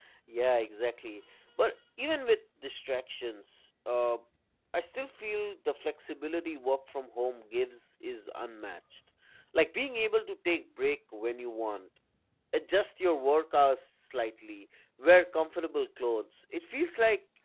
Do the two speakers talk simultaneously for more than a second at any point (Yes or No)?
No